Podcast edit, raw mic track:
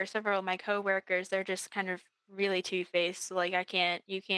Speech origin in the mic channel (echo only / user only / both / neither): user only